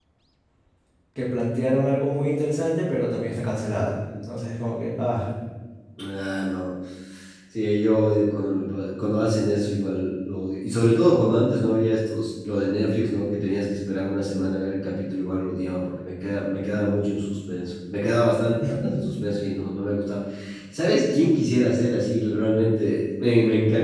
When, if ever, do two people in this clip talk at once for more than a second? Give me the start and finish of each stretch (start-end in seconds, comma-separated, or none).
none